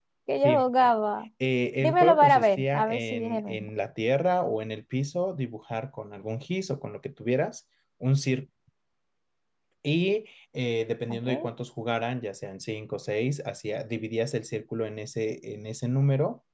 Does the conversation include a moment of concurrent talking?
Yes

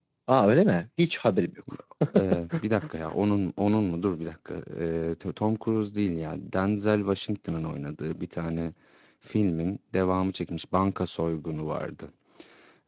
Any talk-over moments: No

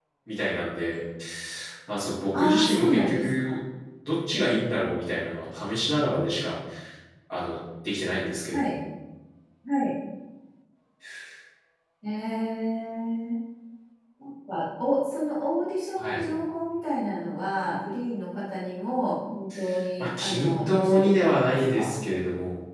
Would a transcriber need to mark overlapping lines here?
Yes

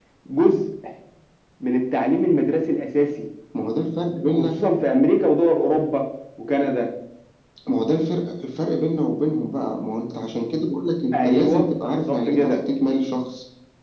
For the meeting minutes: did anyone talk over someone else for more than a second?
Yes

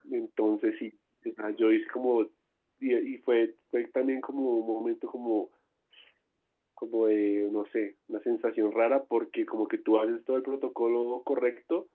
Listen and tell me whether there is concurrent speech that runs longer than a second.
No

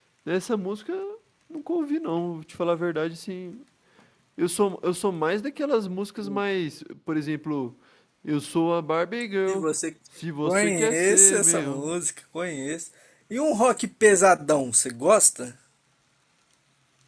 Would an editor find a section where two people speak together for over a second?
Yes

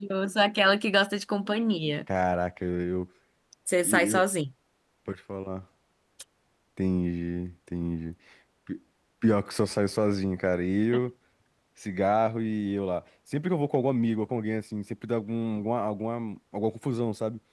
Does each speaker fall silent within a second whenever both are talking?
Yes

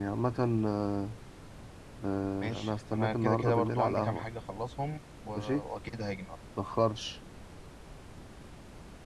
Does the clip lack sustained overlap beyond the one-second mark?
No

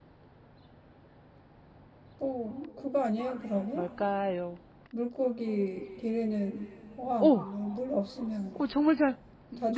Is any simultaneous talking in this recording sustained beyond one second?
No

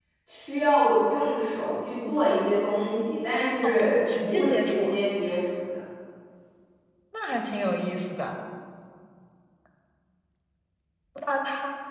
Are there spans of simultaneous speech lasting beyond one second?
Yes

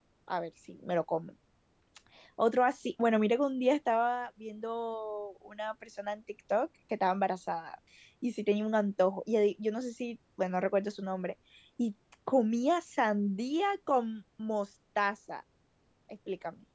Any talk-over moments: No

